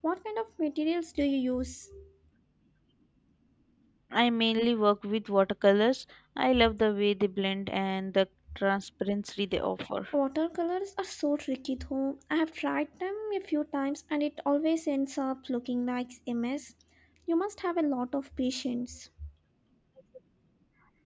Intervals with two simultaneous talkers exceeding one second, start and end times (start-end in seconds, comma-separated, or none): none